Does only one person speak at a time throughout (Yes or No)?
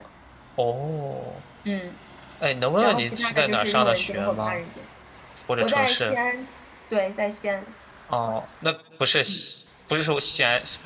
No